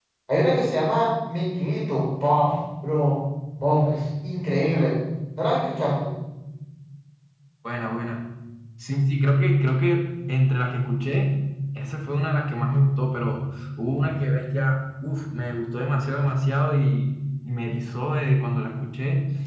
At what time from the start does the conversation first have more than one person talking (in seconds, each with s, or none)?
none